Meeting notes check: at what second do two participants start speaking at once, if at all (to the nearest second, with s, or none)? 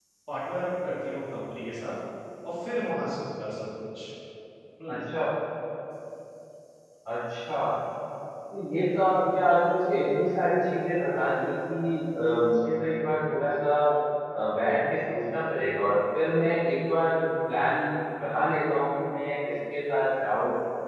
none